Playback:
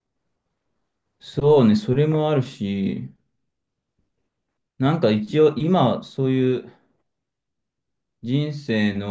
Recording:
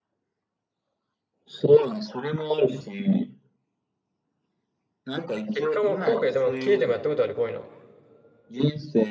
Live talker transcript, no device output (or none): 結果も後悔でも切れてもやったことある、こういうの。